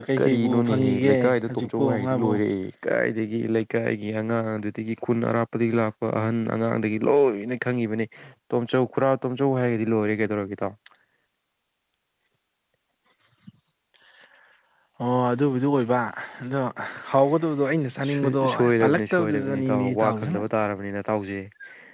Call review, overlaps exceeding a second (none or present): present